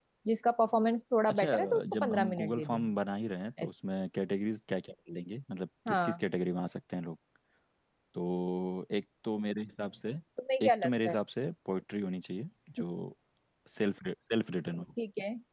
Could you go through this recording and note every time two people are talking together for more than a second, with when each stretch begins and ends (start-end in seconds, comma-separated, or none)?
1.3-2.9